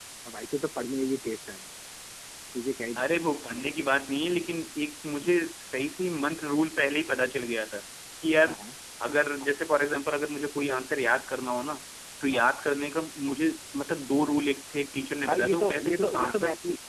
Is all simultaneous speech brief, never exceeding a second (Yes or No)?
No